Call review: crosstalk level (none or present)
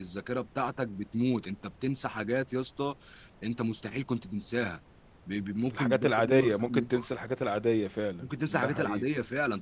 present